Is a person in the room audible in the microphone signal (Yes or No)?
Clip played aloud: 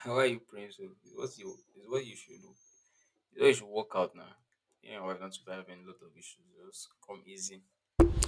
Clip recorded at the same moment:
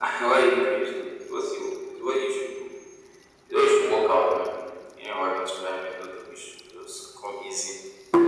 No